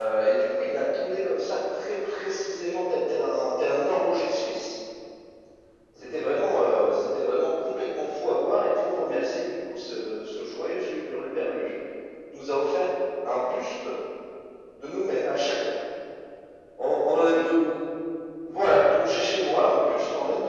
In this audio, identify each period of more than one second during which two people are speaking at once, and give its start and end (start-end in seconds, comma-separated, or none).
none